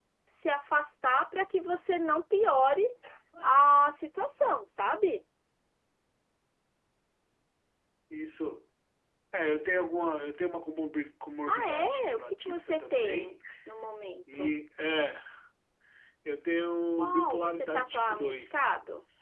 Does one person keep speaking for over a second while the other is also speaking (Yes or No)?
Yes